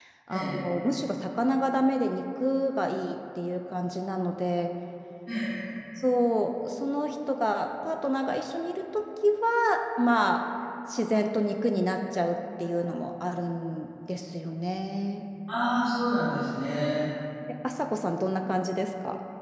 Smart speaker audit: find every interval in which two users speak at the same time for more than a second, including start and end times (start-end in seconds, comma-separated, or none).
none